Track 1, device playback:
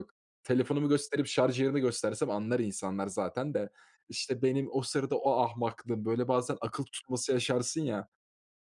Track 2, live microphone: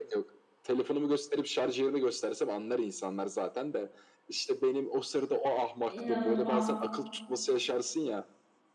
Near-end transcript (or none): İnanılmaz.